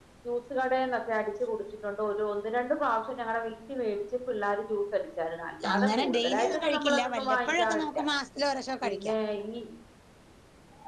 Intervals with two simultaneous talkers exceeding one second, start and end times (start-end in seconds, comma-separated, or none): 5.7-8.0